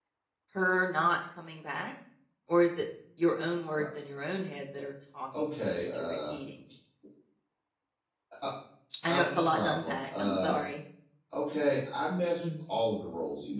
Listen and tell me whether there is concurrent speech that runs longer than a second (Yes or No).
Yes